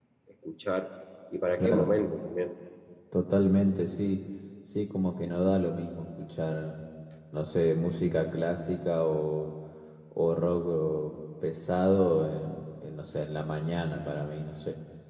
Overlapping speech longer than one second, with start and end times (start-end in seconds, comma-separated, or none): none